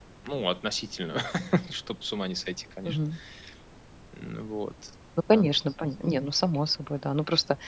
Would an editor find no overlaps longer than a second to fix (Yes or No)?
Yes